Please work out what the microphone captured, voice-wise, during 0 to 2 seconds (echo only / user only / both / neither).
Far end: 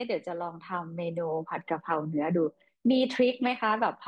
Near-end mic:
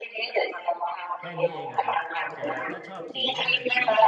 both